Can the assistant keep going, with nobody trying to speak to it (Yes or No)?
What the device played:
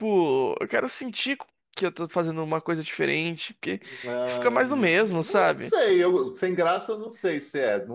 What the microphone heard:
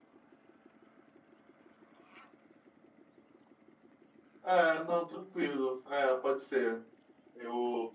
No